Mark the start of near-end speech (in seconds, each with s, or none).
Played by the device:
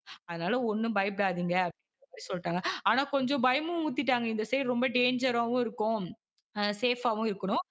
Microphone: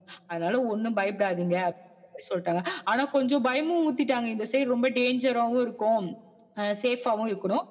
none